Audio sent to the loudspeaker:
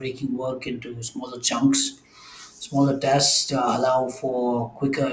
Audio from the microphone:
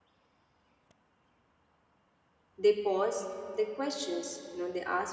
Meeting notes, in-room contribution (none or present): present